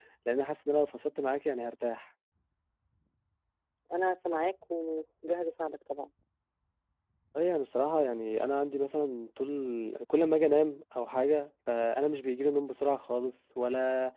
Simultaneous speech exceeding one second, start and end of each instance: none

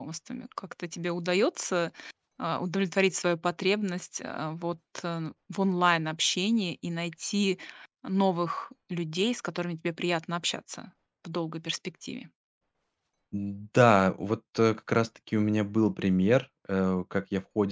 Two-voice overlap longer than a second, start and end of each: none

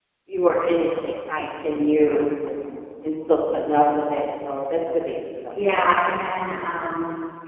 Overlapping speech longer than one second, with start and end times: none

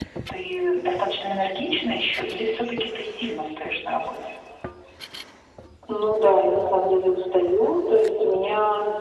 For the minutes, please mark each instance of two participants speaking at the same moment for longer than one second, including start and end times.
none

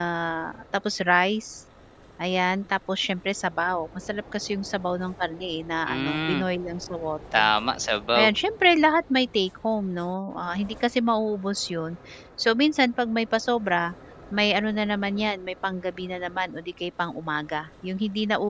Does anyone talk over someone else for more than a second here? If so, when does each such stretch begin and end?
none

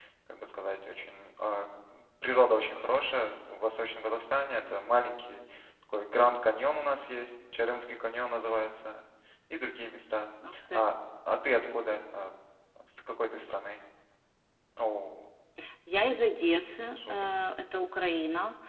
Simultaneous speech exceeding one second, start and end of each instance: none

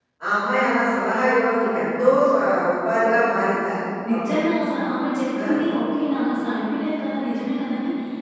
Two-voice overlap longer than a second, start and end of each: none

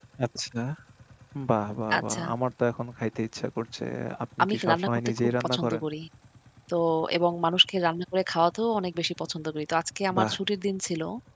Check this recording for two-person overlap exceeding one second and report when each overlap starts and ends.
4.4-5.8

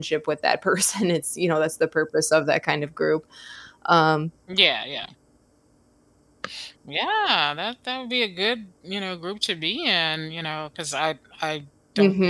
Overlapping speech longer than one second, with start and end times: none

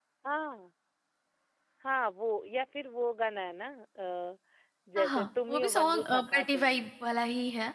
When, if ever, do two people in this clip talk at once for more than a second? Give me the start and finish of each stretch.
5.0-6.9

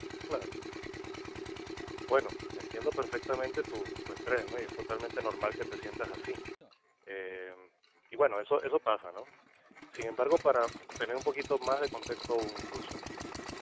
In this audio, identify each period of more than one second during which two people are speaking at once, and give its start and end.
none

